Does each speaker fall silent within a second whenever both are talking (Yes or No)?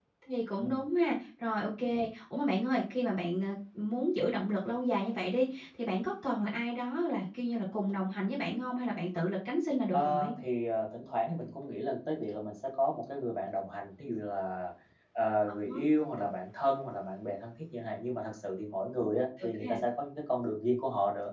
Yes